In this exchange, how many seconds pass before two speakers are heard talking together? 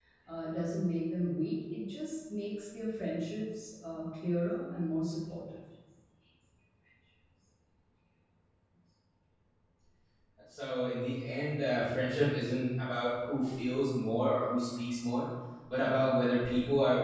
none

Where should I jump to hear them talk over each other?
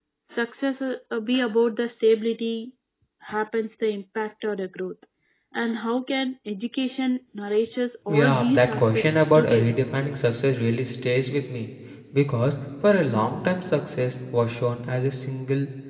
8.1 s

